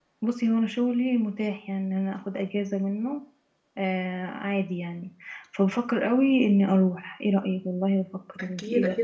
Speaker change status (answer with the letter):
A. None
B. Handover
B